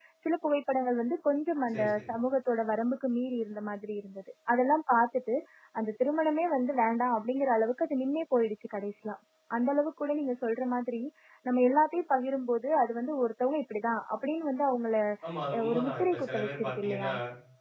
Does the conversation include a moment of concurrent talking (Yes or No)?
Yes